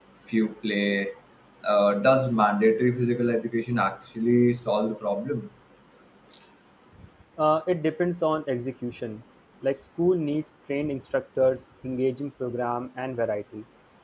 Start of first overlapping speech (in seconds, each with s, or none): none